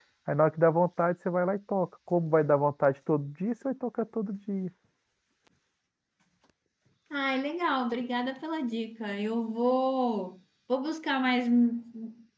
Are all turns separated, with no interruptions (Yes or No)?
Yes